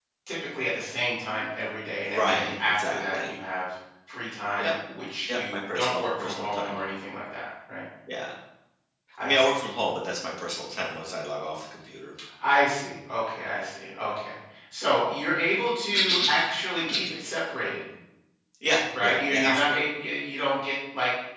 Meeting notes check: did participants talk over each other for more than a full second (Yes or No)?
Yes